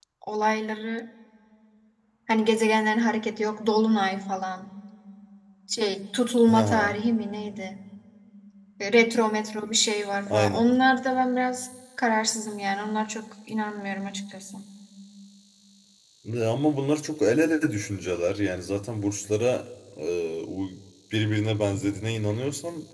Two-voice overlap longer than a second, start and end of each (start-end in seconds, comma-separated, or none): none